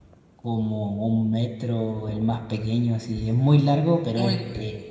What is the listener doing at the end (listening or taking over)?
listening